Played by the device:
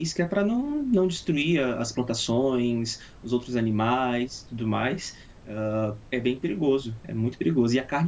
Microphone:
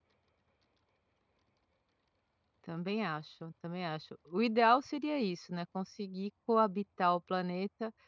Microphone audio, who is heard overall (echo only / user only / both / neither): user only